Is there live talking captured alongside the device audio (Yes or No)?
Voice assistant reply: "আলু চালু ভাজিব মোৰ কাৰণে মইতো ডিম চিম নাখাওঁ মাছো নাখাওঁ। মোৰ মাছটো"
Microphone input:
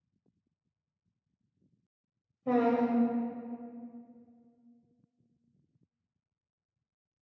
Yes